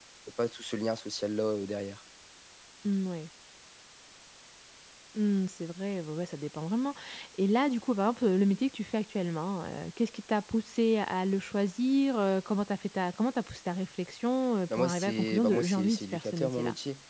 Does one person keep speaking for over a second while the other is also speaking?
Yes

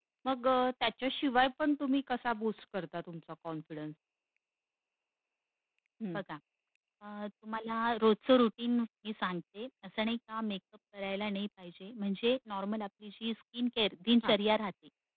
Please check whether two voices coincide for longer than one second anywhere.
No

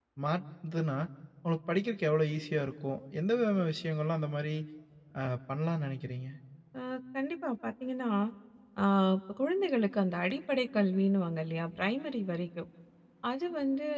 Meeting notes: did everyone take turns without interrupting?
Yes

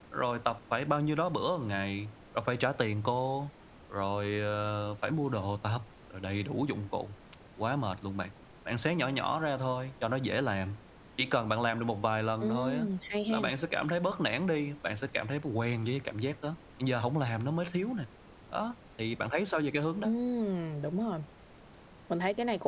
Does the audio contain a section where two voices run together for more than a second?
No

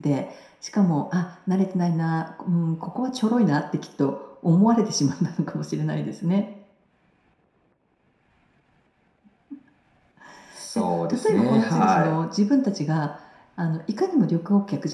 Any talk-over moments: Yes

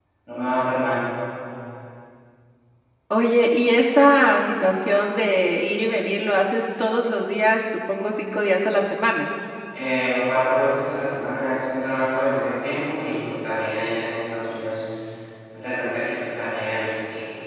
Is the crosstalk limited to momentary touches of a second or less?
Yes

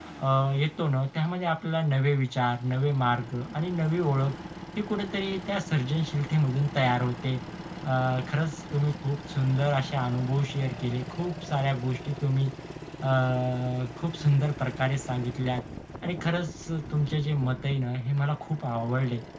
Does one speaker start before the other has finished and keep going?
No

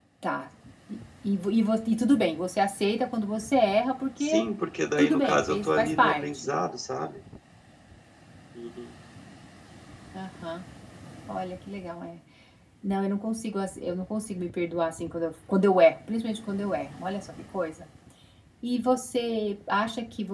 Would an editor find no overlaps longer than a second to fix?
No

